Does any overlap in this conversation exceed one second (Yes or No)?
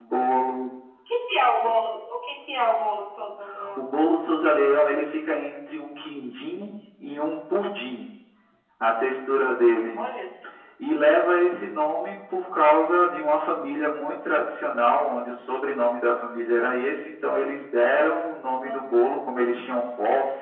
No